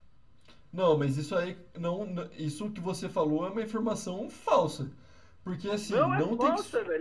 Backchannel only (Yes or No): No